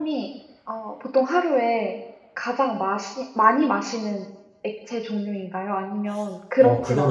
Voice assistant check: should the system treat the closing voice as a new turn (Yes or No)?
Yes